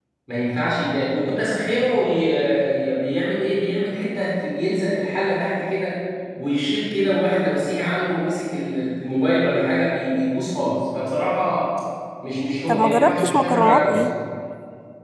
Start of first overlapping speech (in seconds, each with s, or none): 12.7 s